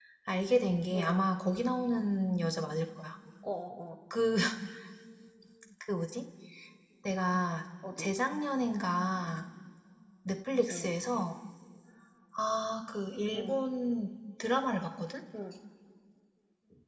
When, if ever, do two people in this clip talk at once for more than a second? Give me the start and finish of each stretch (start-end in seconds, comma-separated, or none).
none